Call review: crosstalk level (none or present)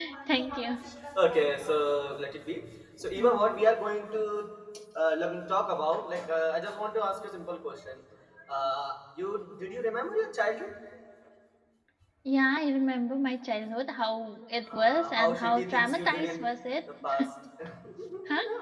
present